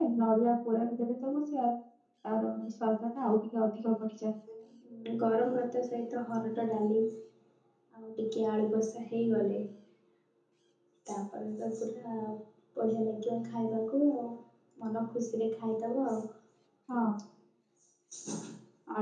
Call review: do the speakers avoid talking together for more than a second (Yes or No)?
Yes